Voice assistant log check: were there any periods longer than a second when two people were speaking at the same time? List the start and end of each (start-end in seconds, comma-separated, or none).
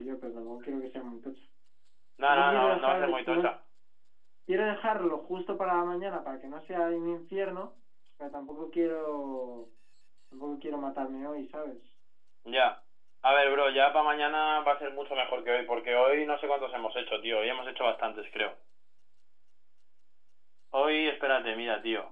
2.3-3.5